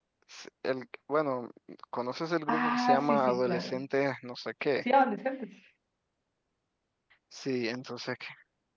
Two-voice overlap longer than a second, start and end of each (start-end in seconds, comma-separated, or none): 2.5-3.8